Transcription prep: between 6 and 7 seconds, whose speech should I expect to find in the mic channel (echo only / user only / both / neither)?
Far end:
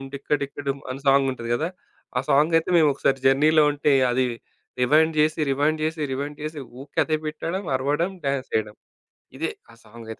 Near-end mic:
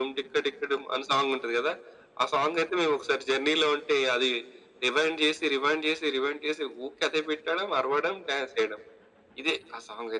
echo only